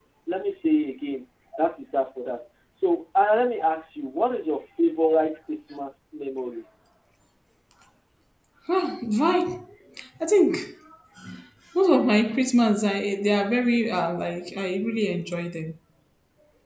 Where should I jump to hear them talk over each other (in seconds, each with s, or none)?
none